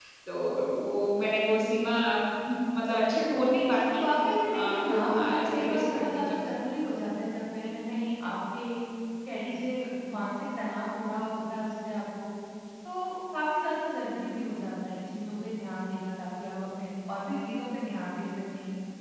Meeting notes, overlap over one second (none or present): present